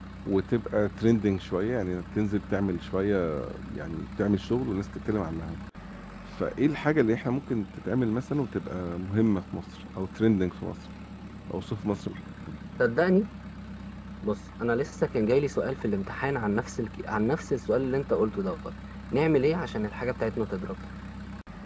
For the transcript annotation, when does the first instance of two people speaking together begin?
none

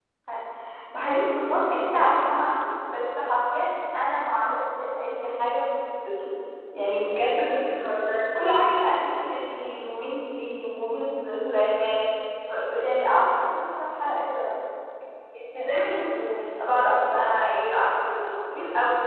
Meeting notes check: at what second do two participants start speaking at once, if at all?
none

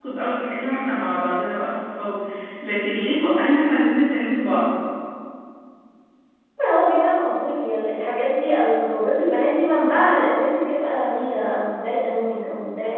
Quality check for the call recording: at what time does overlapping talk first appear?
none

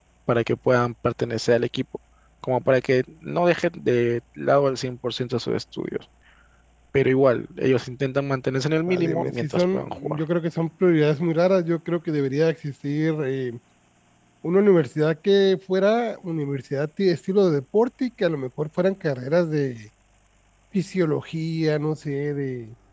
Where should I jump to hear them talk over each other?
8.9 s

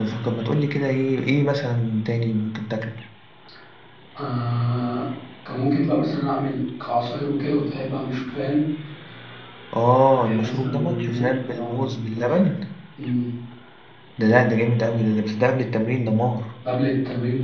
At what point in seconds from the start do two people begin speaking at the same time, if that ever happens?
10.4 s

